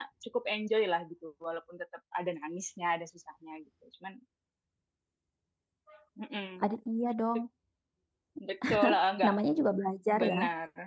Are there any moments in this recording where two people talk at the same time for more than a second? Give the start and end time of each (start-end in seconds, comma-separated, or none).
none